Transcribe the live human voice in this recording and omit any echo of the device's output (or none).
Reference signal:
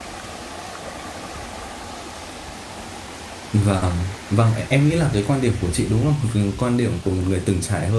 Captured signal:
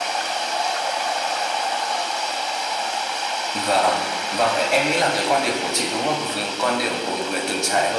none